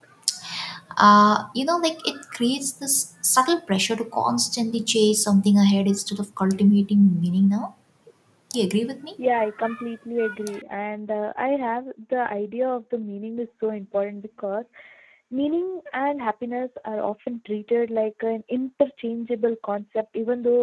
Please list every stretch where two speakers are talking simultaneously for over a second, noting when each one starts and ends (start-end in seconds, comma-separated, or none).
none